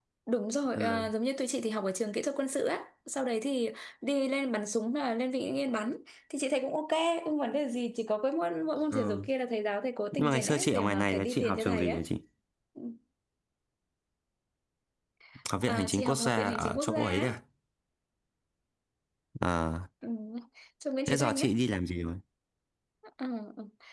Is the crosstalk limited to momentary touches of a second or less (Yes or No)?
No